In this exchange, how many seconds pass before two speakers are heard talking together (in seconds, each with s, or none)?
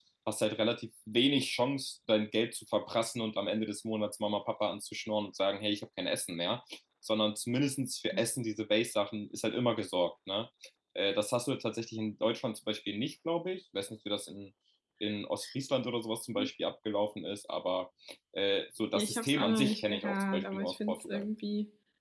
18.9 s